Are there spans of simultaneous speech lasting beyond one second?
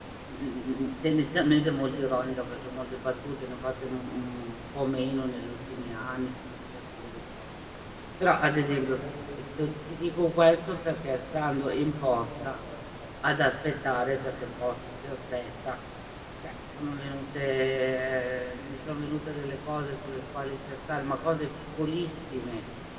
No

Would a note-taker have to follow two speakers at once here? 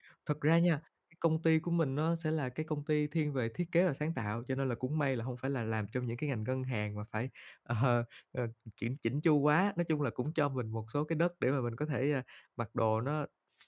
No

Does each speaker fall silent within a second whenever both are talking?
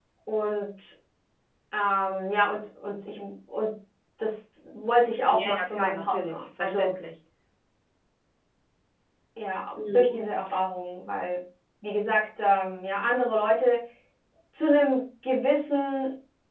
No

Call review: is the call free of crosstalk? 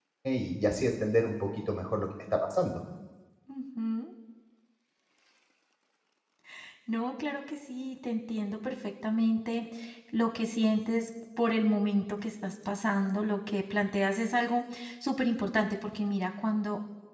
Yes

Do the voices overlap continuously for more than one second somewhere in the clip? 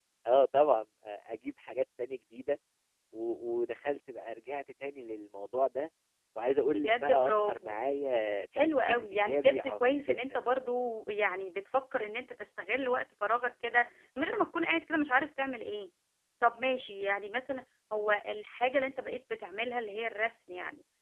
Yes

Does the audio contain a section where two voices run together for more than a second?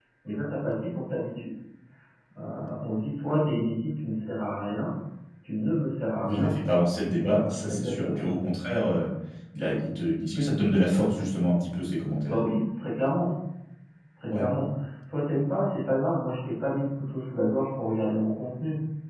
Yes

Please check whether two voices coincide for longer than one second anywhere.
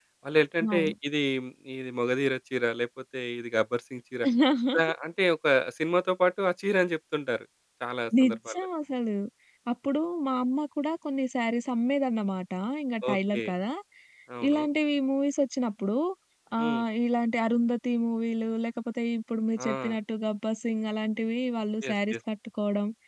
No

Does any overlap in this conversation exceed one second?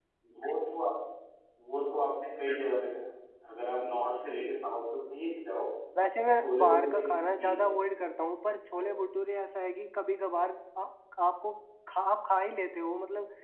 Yes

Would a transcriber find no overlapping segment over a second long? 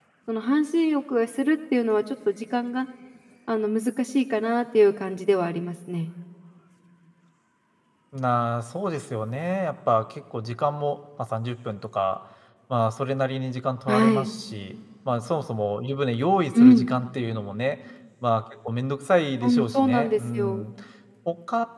No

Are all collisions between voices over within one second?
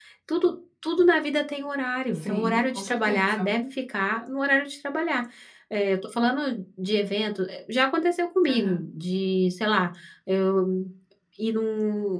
No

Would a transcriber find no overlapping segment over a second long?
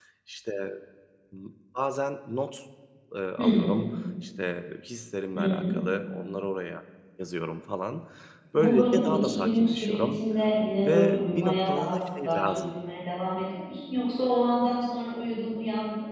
No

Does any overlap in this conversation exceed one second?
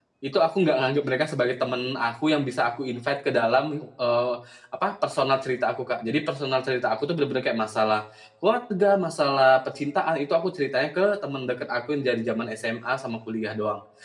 No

